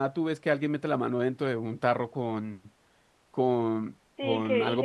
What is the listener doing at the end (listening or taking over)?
taking over